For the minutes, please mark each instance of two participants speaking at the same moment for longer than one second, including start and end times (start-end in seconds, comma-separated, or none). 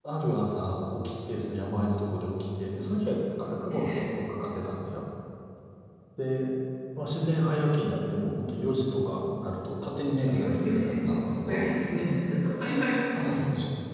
10.2-11.7